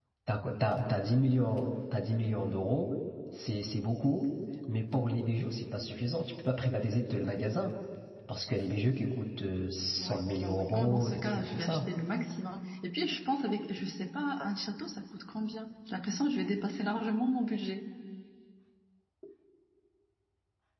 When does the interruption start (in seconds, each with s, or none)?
10.0 s